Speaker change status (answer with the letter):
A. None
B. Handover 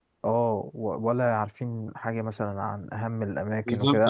A